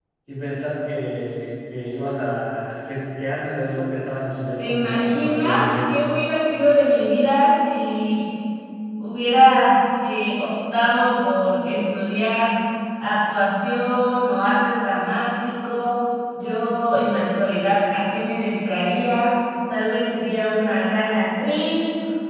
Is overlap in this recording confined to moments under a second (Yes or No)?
No